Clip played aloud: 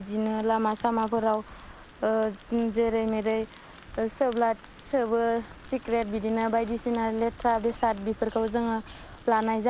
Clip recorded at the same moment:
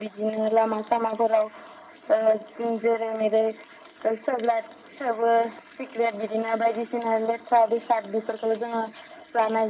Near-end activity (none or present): none